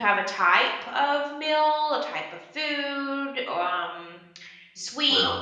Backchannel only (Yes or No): Yes